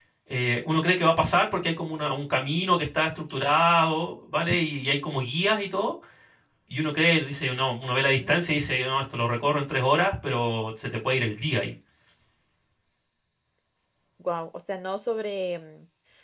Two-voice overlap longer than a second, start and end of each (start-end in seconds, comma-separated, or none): none